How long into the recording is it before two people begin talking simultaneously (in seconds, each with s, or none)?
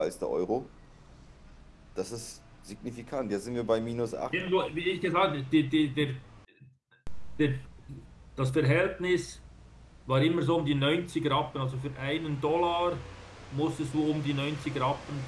none